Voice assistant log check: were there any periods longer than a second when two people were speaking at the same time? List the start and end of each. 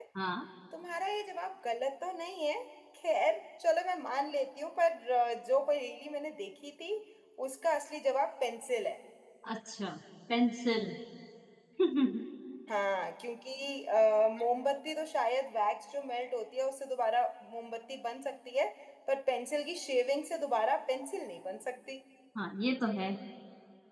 none

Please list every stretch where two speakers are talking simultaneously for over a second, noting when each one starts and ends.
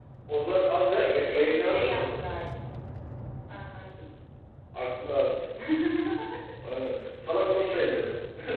0.9-2.2

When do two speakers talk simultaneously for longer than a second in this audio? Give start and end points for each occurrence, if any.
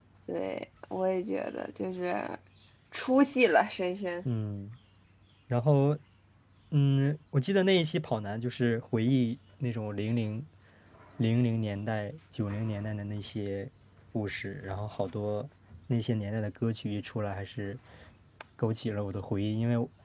none

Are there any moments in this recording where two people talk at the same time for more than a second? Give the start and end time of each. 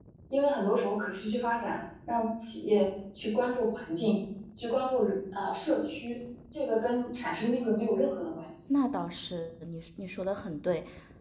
none

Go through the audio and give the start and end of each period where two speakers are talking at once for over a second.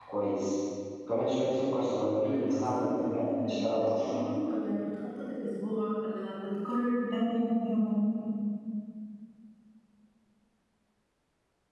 2.2-4.2

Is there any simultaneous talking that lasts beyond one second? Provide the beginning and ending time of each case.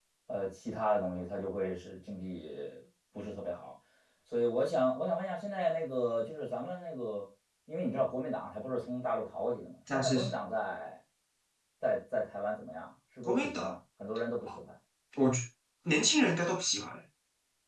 none

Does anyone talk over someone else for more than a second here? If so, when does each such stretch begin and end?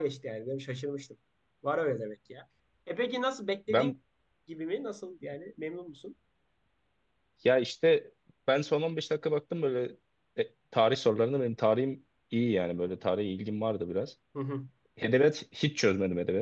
none

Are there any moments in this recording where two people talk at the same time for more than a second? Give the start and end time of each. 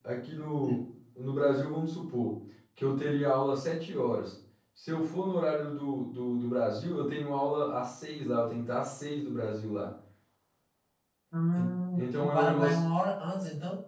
11.6-12.8

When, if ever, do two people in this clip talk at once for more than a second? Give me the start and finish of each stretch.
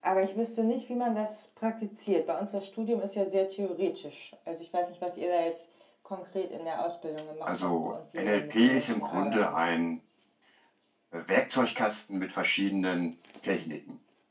7.4-9.6

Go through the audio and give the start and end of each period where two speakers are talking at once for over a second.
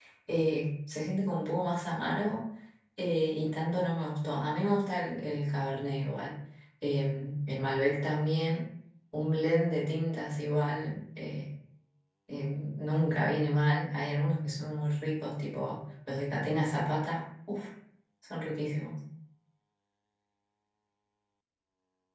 none

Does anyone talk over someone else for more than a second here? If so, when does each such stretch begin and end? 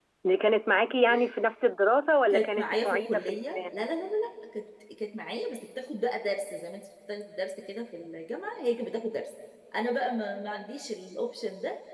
2.3-3.6

